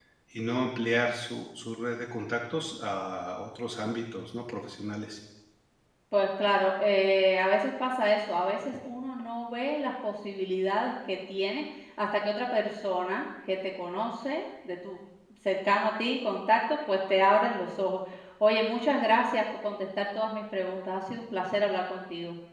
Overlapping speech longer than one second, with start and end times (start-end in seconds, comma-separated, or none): none